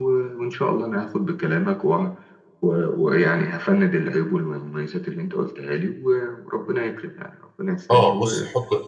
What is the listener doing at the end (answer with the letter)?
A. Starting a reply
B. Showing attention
A